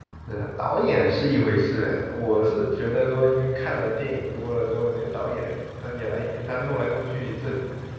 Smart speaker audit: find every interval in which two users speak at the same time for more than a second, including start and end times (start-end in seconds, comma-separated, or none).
none